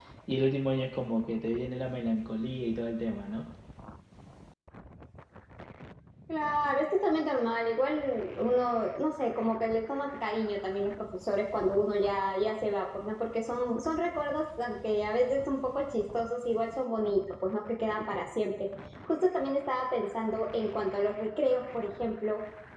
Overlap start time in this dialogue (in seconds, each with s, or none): none